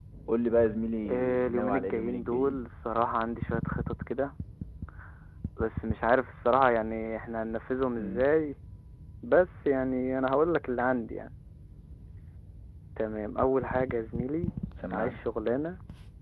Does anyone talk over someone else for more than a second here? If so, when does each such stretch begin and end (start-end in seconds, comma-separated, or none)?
1.1-2.7